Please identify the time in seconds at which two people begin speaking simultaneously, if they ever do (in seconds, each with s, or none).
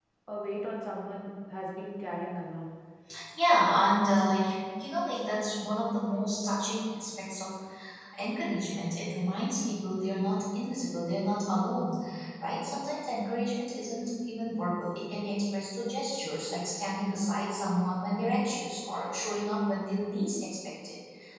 none